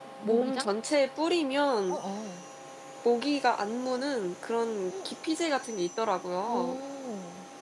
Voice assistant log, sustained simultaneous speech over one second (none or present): none